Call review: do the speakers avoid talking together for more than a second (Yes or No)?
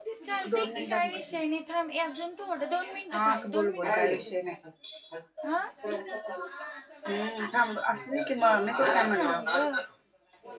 No